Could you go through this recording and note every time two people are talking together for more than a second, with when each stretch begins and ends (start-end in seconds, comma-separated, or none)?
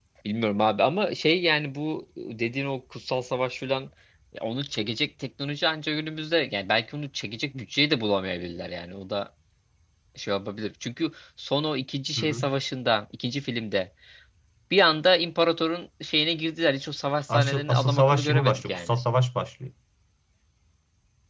17.3-19.0